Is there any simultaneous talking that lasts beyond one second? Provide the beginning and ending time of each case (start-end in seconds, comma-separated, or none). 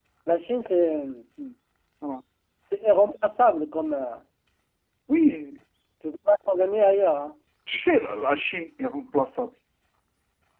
none